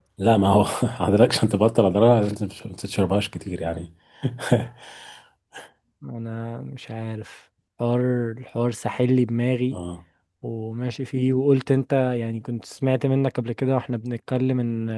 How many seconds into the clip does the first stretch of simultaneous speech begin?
none

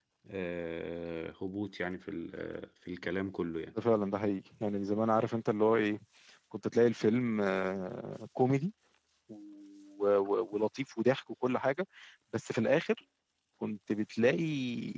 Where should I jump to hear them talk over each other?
none

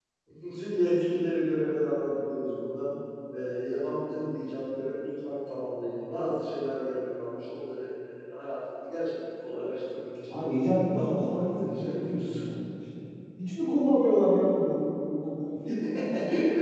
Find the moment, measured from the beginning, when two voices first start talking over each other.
10.9 s

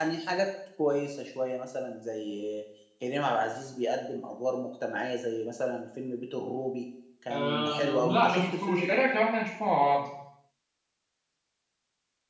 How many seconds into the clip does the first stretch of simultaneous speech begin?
7.3 s

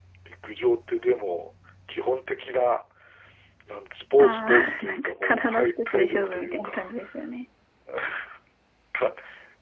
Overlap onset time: 4.2 s

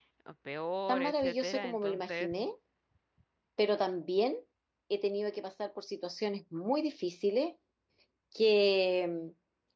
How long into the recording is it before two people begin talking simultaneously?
0.9 s

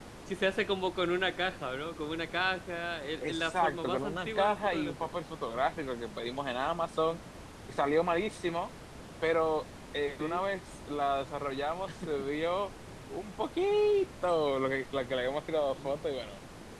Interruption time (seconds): 3.2 s

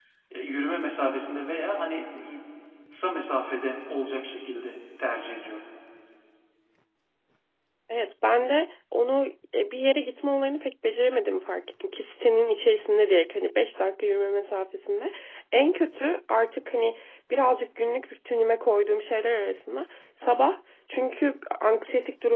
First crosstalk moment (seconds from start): none

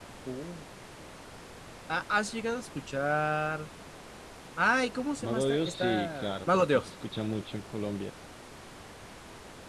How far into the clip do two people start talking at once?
5.2 s

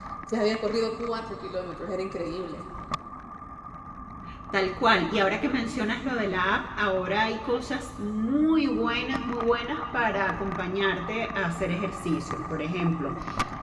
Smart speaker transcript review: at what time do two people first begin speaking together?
none

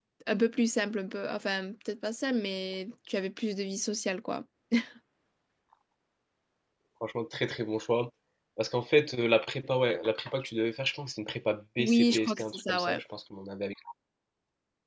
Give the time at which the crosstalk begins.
11.8 s

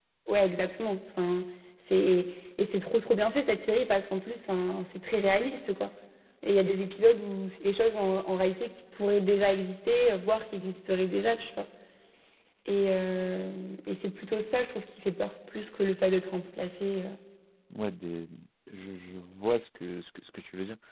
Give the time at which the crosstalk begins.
none

